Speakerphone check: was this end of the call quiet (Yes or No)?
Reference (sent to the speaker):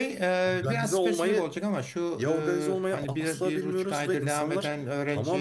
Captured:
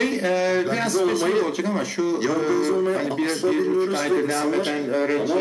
Yes